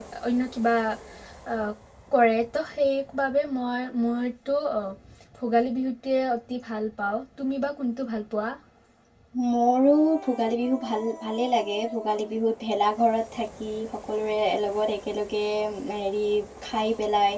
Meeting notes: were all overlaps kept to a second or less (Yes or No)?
Yes